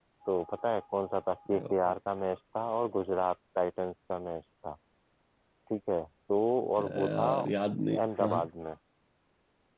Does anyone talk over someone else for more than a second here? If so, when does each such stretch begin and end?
6.8-8.5

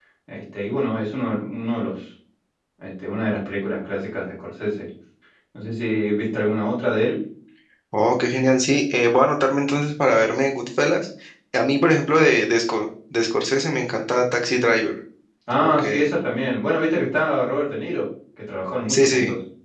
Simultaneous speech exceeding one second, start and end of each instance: none

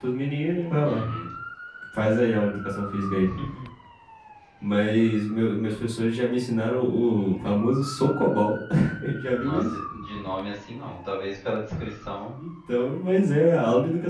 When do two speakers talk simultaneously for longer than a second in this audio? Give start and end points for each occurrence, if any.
none

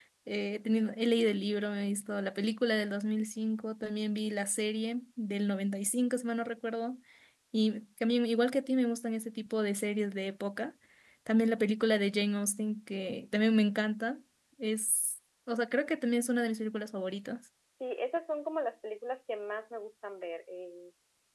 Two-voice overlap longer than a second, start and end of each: none

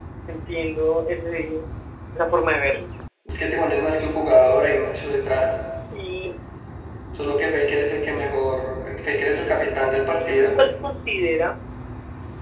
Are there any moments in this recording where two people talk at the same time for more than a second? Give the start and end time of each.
none

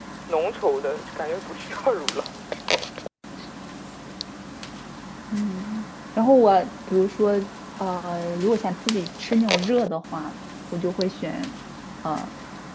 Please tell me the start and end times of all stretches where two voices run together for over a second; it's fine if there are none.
none

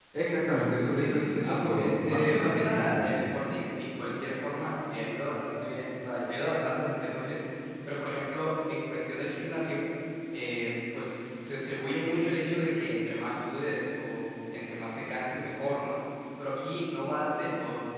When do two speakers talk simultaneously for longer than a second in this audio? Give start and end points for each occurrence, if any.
0.9-3.0

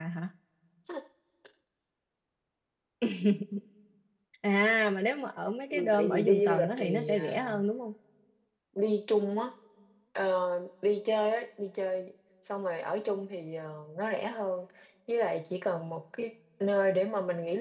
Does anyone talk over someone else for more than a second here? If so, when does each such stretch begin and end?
5.7-7.5

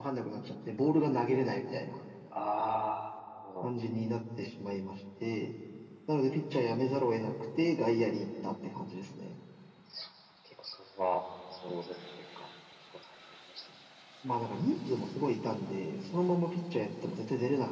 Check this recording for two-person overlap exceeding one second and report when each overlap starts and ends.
none

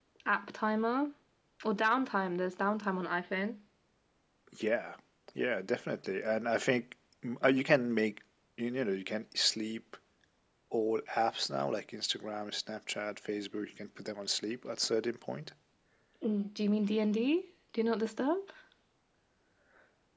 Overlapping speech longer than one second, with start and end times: none

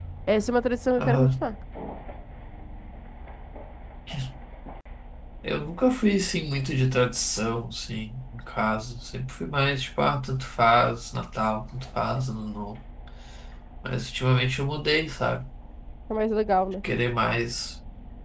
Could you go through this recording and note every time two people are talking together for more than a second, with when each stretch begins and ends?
none

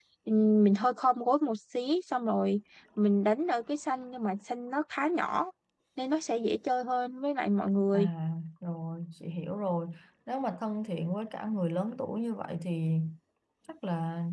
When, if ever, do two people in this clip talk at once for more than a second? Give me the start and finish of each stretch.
none

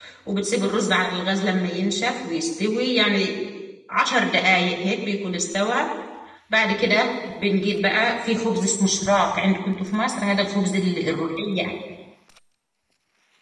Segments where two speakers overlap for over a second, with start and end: none

